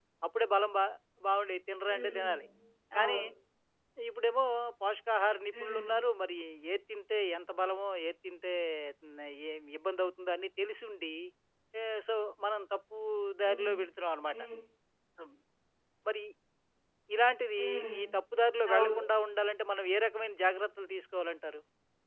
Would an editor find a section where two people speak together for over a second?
No

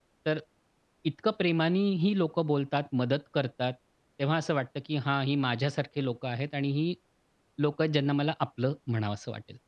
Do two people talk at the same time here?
No

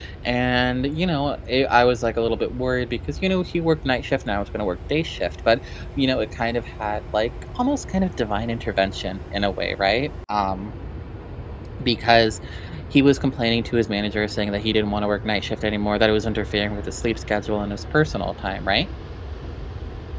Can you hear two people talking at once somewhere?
No

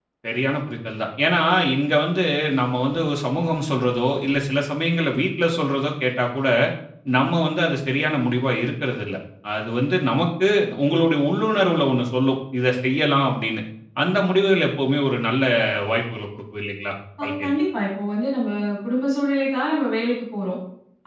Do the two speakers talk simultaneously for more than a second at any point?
No

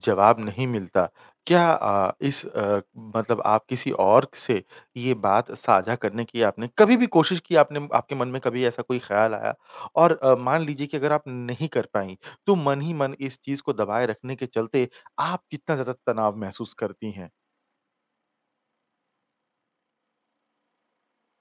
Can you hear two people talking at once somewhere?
No

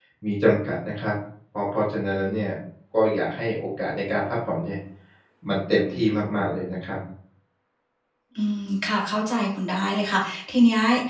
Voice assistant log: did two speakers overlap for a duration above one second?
No

